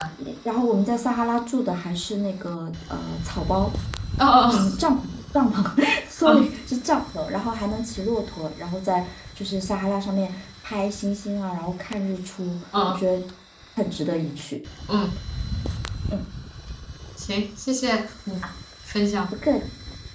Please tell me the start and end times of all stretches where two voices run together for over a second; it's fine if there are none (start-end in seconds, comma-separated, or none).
none